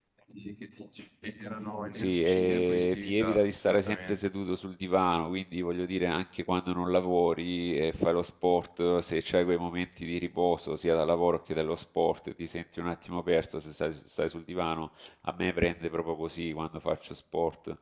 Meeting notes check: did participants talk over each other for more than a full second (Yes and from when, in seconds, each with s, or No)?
Yes, from 2.0 s